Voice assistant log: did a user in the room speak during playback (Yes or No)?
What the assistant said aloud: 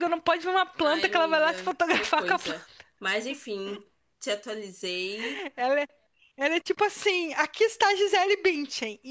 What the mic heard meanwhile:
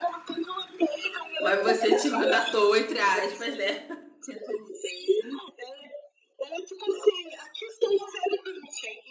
Yes